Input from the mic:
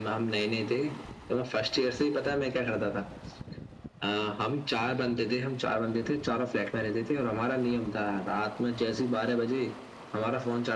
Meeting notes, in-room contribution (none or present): none